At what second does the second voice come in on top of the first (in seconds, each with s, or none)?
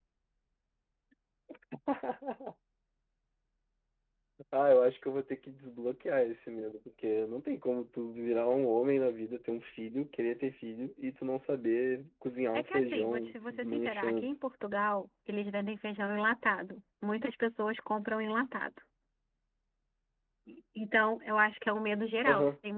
12.5 s